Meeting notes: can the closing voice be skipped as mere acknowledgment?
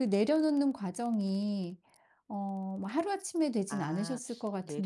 No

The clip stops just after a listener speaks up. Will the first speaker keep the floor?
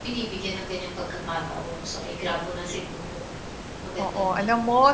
No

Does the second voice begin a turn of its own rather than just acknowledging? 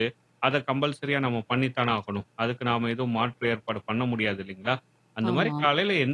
No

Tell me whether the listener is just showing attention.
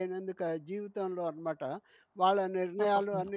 Yes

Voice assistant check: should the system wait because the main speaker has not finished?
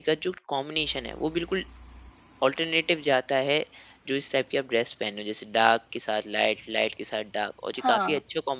Yes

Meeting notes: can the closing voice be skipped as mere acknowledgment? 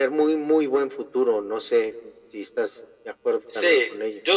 No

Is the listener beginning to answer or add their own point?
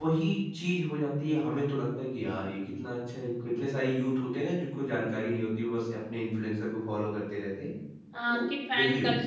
Yes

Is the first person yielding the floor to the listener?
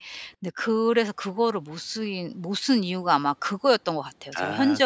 Yes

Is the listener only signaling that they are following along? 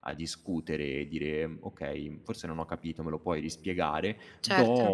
Yes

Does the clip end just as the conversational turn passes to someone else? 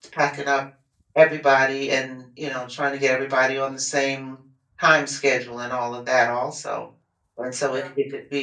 No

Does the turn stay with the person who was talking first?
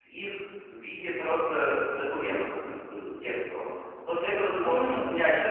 Yes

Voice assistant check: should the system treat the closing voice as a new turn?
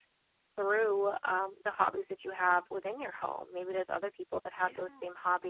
No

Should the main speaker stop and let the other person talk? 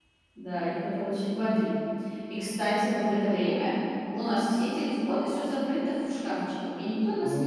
Yes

